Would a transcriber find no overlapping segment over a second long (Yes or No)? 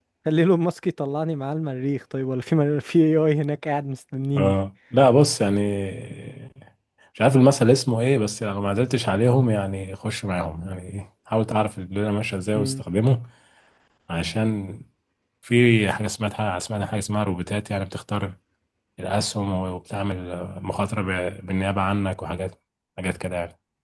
Yes